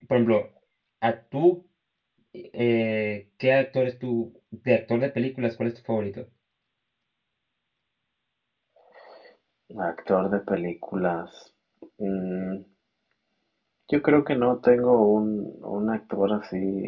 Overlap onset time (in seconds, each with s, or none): none